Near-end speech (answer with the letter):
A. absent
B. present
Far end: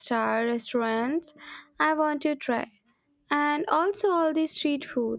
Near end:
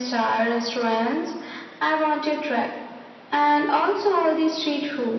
A